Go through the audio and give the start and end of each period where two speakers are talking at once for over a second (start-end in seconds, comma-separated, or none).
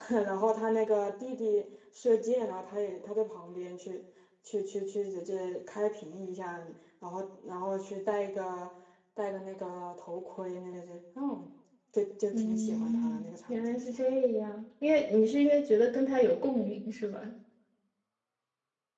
12.3-14.1